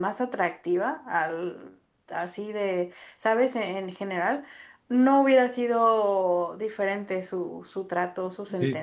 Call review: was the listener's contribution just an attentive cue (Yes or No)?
No